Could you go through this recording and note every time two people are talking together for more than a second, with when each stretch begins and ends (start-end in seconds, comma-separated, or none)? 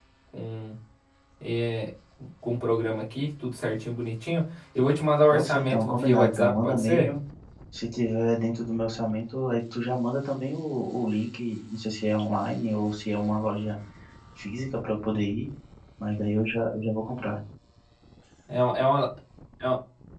5.3-7.1